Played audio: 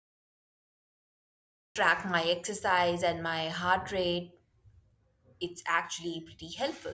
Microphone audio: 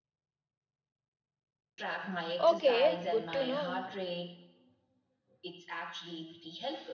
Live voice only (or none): Okay, good to know.